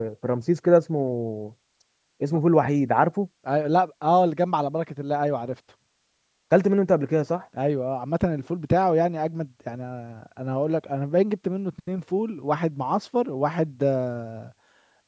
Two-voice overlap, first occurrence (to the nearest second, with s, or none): none